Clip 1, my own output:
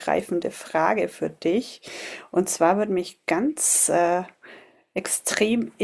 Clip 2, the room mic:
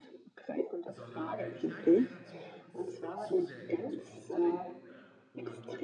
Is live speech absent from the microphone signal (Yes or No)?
No